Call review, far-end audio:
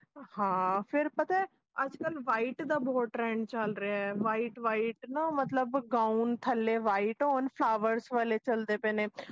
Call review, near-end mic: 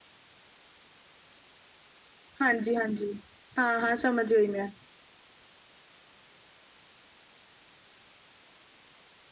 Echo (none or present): none